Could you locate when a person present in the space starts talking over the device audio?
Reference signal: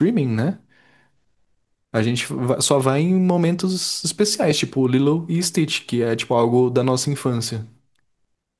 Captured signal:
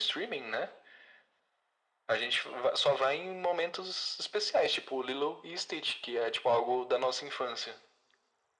none

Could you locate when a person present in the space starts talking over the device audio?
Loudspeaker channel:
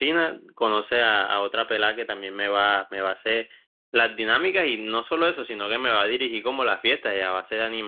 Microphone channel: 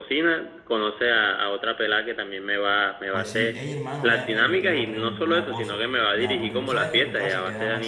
3.1 s

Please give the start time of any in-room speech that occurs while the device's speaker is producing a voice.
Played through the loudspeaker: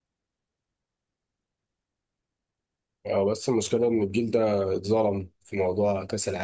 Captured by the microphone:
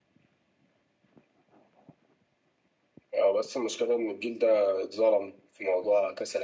none

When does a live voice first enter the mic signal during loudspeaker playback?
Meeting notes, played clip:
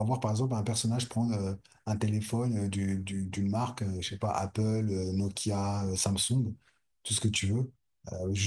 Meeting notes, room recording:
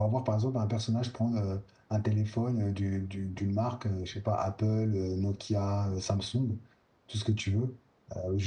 none

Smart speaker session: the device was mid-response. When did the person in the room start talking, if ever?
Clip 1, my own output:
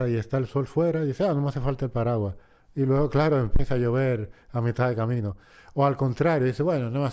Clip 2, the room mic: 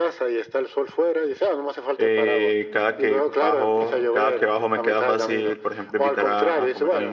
2.0 s

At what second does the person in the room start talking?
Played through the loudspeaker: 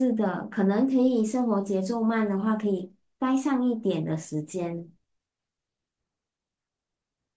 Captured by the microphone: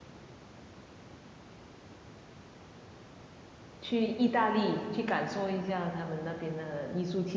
3.8 s

